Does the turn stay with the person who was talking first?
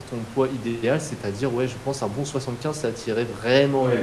No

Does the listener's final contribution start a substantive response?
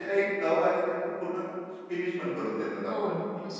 Yes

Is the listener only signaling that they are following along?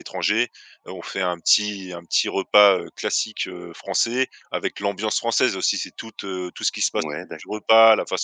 Yes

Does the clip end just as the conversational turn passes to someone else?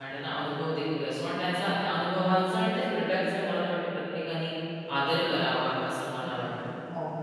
Yes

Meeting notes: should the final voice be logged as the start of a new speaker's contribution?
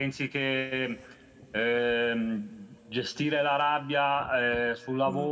No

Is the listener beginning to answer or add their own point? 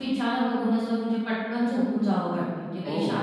No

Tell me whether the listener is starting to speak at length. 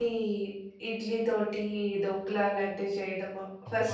No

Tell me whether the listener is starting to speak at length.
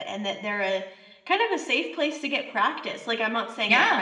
No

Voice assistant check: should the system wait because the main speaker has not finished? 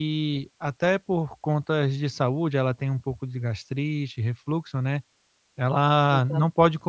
Yes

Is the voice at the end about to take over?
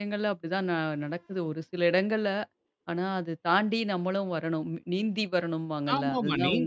Yes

